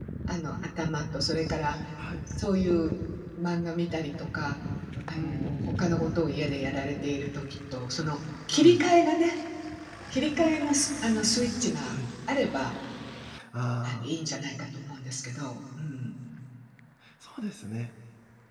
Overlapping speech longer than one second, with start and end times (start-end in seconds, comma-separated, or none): none